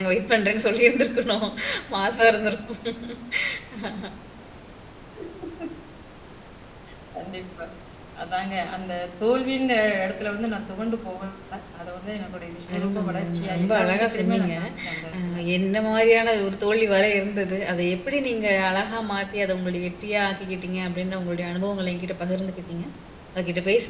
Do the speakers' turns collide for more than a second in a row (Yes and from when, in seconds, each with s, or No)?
Yes, from 12.7 s